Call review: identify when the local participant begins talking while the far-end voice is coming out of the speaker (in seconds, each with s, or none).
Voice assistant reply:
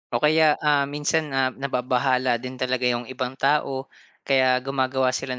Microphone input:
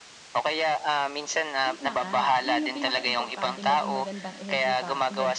1.6 s